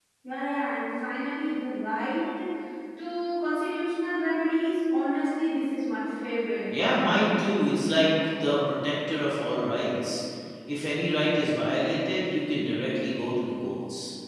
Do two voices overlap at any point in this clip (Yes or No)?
No